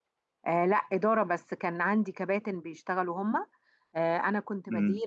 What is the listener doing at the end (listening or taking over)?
listening